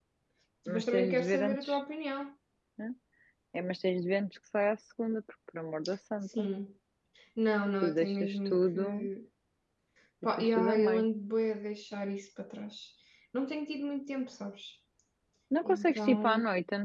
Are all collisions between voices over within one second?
No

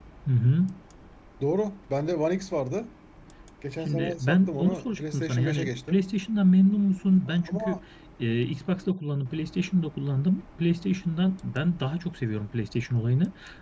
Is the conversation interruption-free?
No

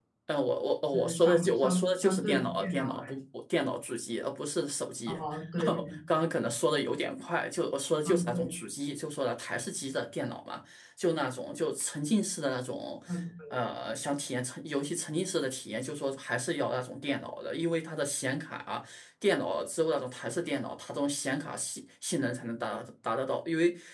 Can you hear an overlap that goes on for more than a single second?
Yes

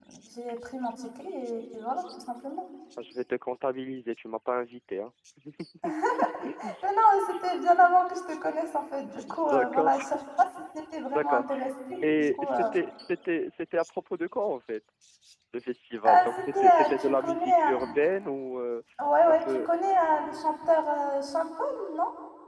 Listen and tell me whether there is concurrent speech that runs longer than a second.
Yes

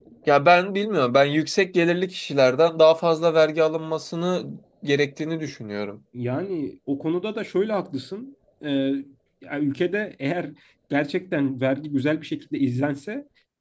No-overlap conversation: Yes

